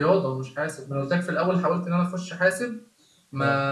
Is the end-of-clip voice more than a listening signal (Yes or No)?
No